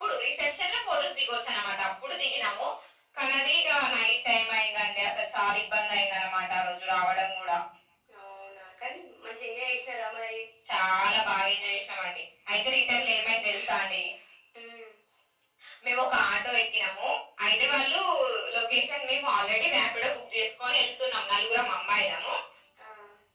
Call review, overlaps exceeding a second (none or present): none